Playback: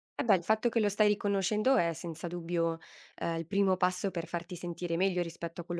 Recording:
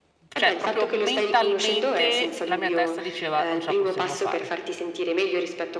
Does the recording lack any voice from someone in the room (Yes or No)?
No